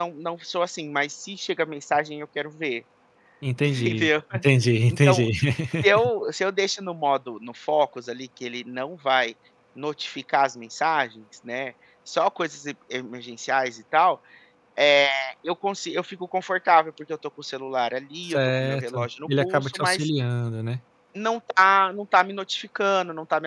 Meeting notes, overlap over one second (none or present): present